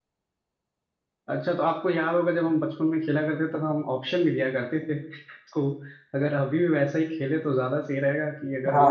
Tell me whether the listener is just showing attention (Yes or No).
No